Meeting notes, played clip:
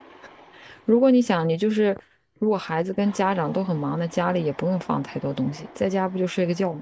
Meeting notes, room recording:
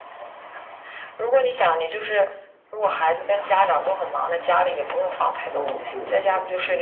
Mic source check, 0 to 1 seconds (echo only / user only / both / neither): neither